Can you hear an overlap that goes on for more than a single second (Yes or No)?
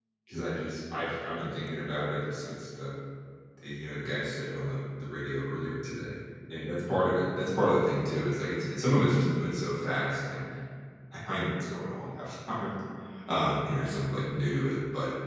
No